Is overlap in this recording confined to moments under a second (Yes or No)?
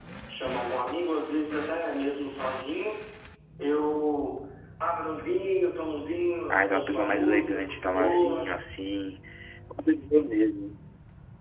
No